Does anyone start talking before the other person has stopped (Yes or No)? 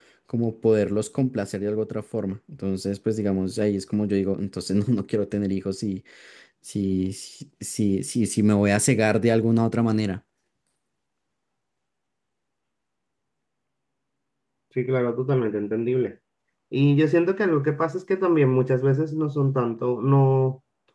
No